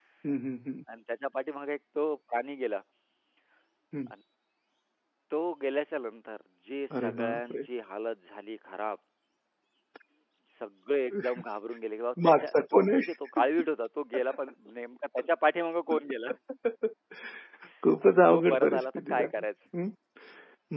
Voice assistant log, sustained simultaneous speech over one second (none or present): present